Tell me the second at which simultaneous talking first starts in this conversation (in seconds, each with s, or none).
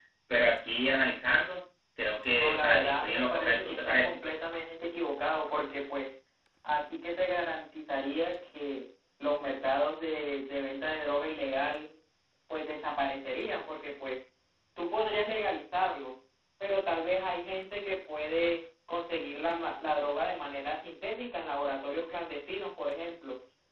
2.4 s